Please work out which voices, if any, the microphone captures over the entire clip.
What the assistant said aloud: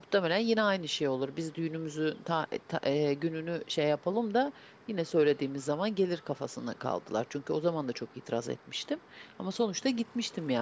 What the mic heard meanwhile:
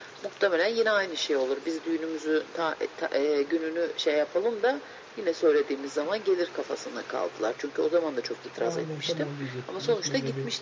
both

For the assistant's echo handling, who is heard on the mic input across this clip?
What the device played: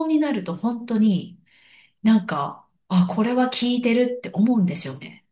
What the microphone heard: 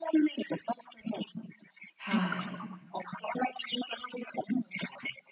both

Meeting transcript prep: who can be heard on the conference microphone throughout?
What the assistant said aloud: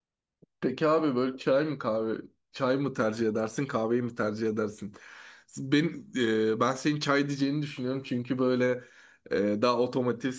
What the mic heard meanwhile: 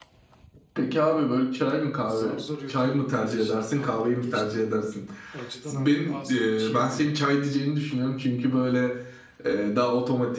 both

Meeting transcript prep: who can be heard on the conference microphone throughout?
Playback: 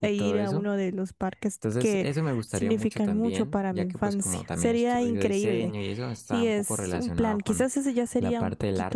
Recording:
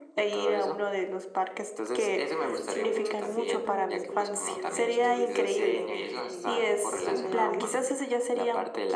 both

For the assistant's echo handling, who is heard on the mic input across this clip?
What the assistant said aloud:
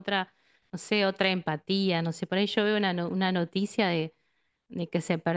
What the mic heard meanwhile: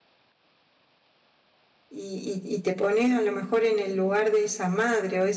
user only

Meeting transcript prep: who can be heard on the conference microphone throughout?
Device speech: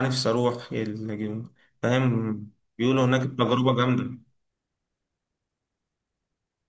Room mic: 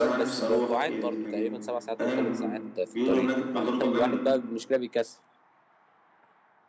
both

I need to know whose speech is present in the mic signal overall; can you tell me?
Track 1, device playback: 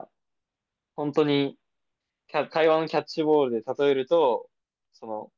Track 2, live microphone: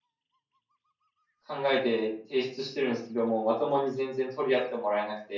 user only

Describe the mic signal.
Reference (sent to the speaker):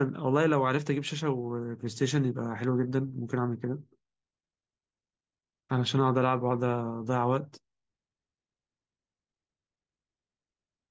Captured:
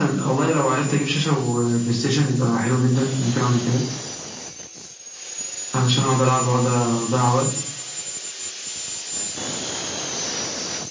echo only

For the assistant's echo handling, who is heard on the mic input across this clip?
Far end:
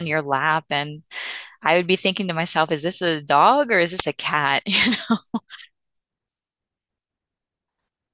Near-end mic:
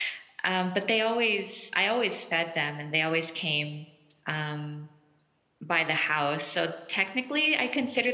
user only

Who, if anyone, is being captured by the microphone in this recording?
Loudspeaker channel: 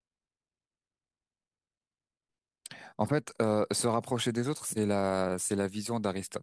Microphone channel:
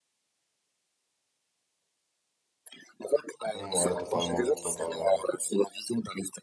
both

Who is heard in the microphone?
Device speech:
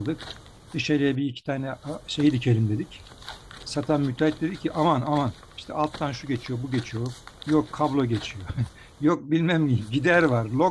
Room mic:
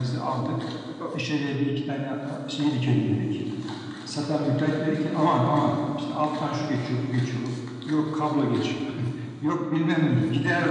both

